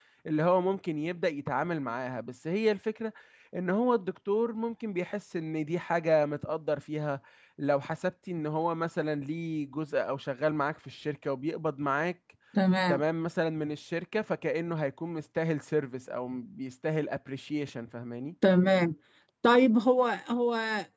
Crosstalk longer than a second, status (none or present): none